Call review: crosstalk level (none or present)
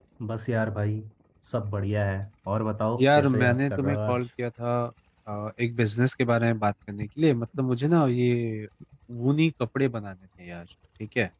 present